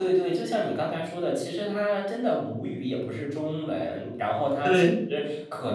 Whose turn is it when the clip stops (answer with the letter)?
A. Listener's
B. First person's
B